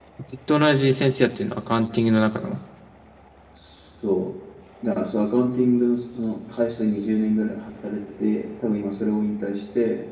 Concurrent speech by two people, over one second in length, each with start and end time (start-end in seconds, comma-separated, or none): none